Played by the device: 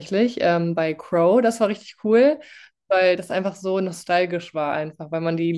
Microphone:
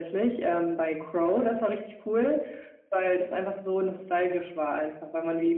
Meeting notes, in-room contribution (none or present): none